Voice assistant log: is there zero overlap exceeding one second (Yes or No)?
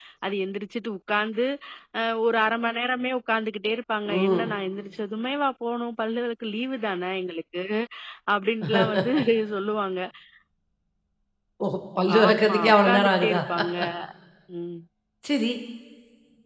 No